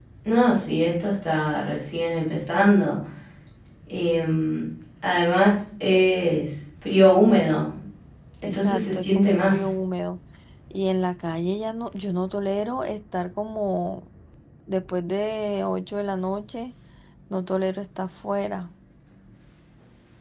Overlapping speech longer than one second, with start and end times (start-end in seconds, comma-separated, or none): 8.4-9.7